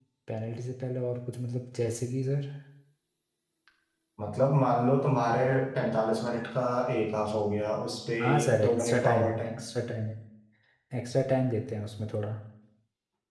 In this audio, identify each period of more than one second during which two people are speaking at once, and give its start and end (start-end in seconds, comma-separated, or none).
8.2-9.6